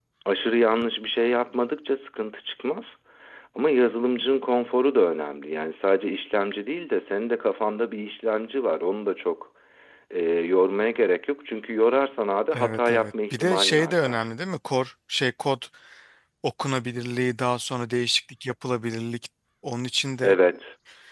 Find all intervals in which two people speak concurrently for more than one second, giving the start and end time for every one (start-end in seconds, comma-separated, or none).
12.5-14.2